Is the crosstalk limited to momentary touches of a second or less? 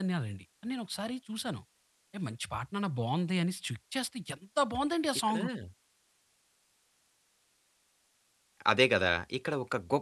Yes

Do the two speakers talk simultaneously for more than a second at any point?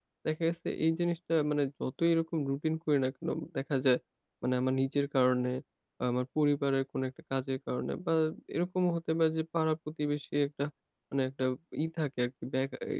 No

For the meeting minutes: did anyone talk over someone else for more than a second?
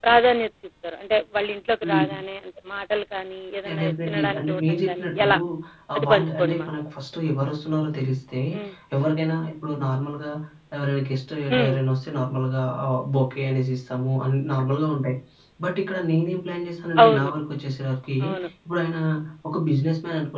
Yes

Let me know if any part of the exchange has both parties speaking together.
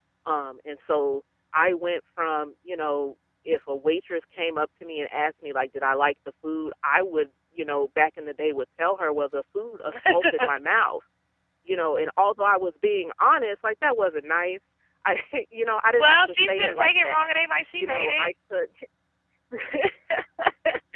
Yes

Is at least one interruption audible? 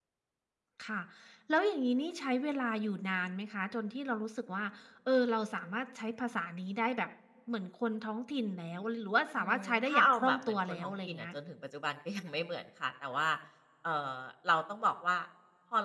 Yes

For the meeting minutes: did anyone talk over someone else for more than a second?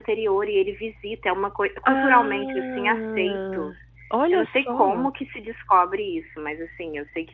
Yes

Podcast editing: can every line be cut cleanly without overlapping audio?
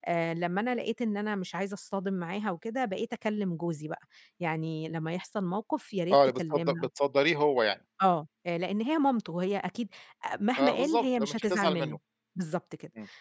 No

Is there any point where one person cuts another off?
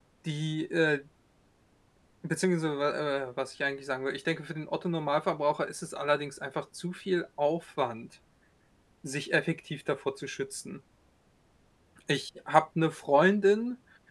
No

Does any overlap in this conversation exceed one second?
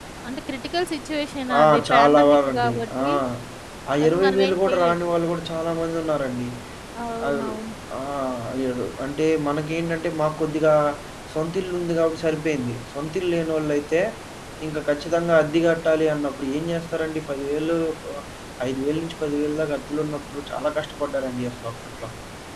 Yes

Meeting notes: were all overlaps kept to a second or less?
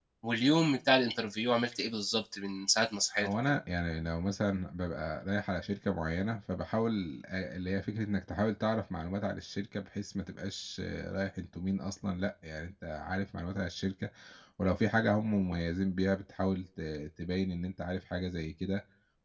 Yes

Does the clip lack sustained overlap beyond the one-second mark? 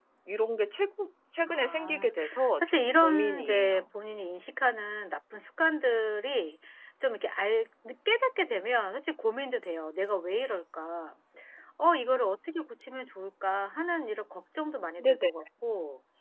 No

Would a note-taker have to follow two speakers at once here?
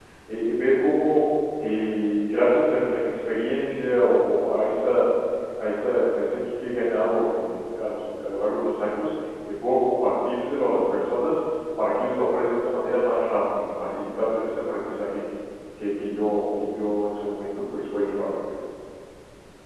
No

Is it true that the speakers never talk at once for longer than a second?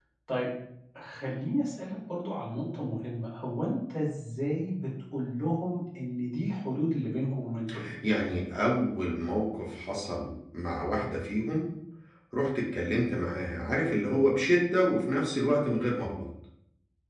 Yes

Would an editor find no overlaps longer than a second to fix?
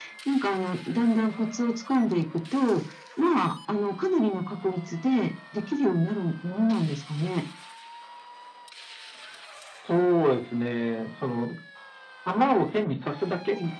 Yes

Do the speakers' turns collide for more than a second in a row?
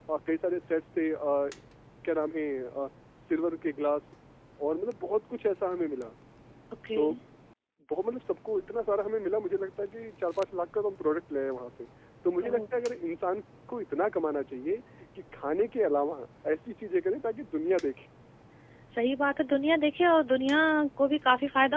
No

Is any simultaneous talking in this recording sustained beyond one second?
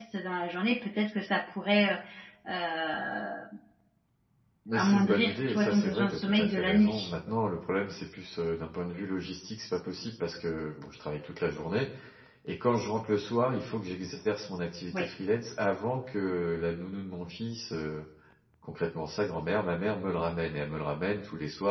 Yes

